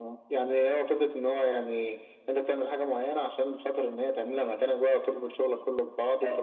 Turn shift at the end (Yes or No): Yes